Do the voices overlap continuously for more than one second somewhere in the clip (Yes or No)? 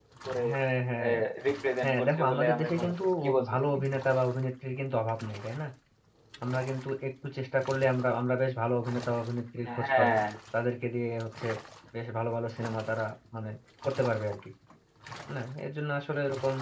Yes